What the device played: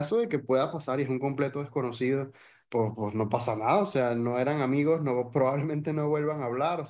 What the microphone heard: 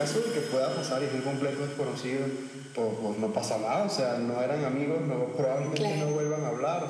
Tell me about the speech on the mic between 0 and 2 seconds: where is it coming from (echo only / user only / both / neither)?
echo only